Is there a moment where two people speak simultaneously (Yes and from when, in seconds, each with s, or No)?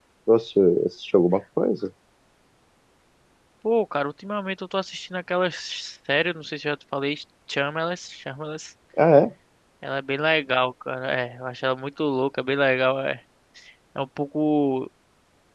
No